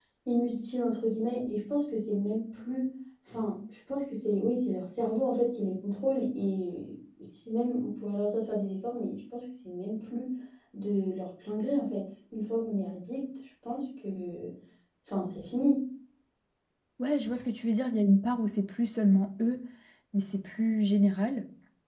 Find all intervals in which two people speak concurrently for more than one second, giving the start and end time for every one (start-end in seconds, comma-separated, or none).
none